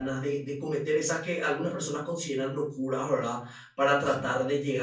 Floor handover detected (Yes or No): No